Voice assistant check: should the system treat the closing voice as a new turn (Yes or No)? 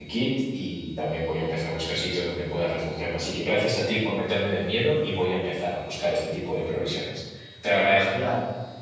Yes